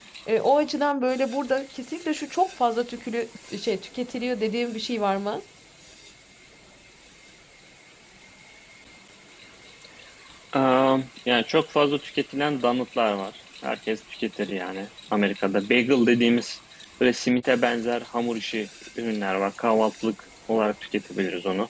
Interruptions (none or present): none